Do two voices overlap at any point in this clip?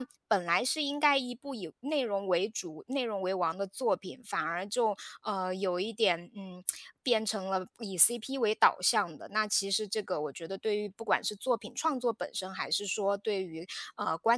No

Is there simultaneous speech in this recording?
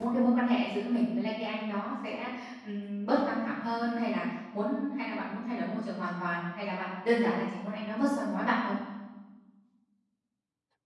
No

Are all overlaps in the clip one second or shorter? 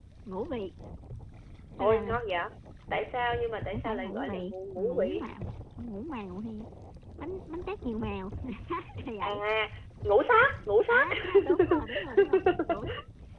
No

